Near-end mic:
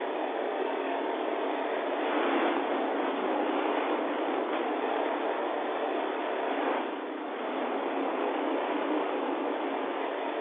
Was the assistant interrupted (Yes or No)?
No